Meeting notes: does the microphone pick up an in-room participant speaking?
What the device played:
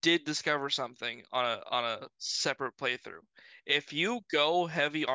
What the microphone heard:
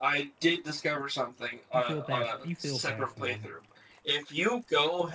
Yes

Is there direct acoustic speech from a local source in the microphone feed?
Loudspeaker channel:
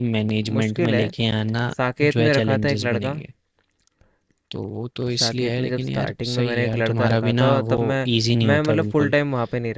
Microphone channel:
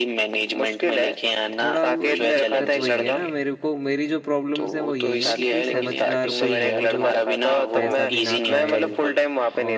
Yes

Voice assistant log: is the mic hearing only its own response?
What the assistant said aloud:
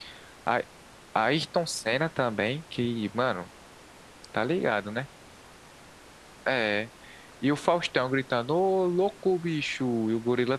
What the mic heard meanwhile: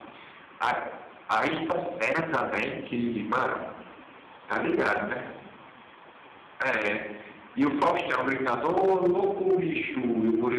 Yes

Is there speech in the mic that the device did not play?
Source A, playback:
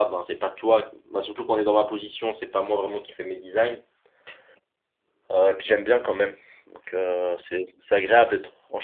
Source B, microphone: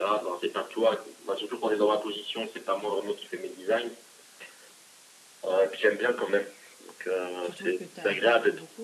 Yes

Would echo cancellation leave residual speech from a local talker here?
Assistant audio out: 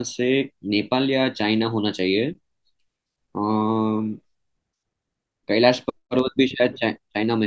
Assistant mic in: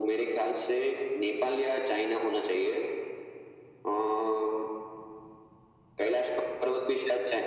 No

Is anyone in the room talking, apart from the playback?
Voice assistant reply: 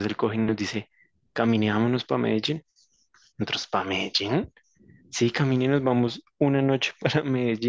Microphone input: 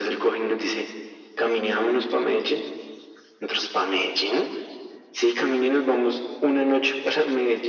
No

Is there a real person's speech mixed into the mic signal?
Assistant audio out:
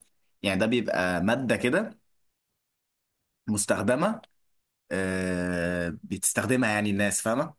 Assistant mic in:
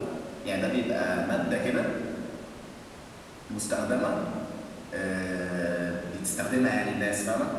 No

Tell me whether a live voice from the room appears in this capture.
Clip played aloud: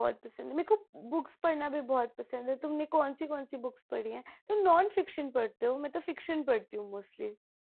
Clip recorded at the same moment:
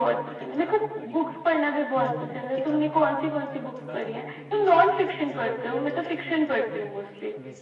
Yes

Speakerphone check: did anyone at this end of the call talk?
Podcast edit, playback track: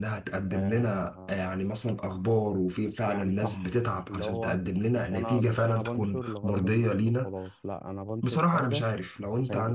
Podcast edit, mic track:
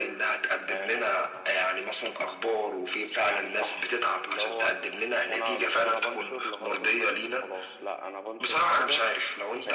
No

